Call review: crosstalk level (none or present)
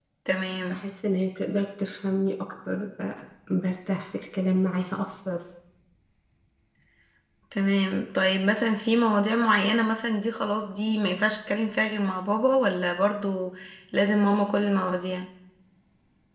none